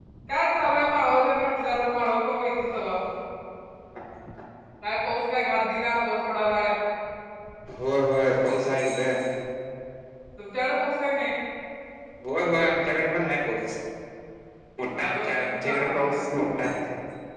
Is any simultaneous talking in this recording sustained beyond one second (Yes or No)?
Yes